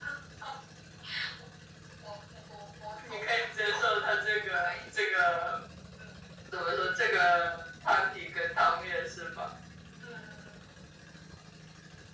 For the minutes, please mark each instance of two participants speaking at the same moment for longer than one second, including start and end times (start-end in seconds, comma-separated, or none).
3.1-5.4